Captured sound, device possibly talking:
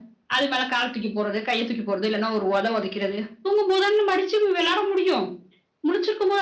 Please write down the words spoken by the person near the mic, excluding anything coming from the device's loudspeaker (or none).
none